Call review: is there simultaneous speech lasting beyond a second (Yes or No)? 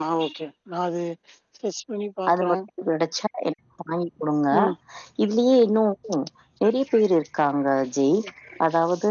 No